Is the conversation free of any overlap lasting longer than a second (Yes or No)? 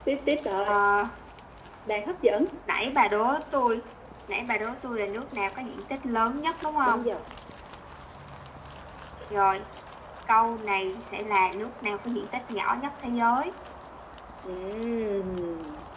Yes